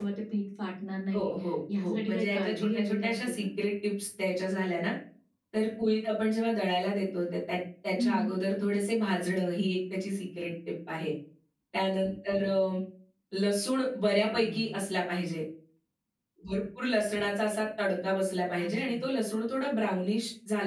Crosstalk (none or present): present